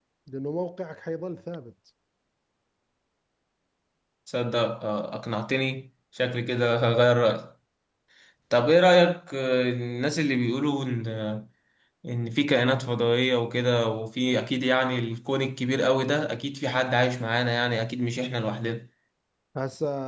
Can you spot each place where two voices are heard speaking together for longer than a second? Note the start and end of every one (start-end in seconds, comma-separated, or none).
none